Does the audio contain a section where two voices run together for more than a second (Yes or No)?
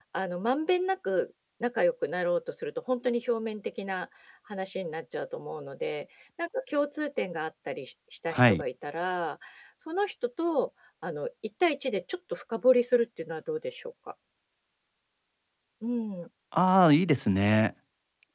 No